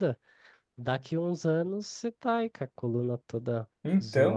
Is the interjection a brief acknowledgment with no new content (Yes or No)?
Yes